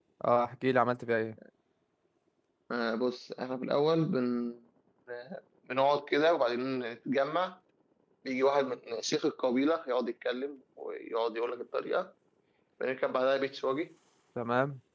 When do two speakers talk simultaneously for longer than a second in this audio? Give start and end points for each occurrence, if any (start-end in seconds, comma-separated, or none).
none